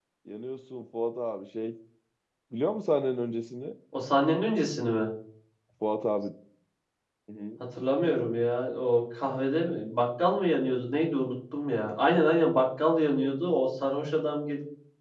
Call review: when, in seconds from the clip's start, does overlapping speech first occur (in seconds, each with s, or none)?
none